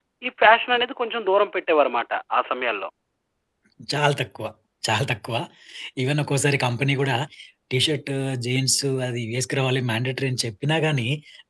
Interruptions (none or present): none